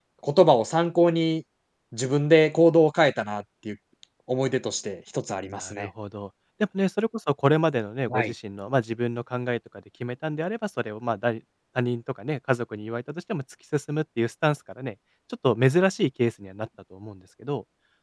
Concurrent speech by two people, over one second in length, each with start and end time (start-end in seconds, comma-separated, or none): none